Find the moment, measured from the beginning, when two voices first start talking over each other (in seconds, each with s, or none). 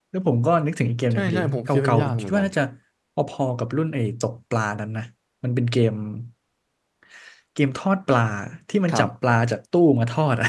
1.2 s